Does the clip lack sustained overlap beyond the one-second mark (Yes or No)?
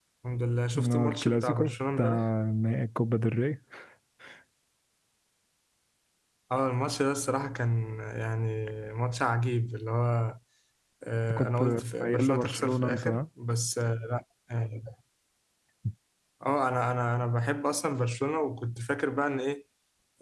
No